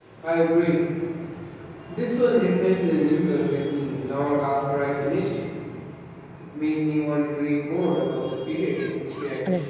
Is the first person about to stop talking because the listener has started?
Yes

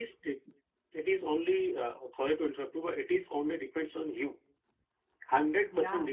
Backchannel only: Yes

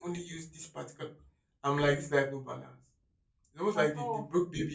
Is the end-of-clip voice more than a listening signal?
No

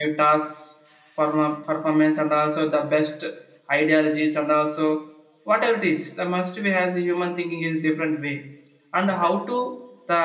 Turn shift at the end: No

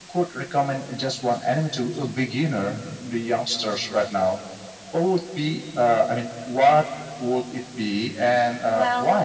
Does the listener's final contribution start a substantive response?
Yes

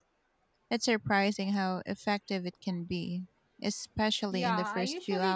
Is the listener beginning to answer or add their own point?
Yes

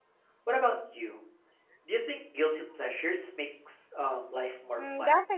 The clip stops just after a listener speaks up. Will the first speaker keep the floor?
No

